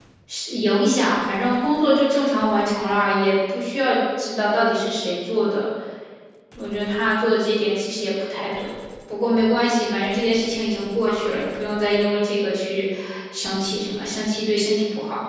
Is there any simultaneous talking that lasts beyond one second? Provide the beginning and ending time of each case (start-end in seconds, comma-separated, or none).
none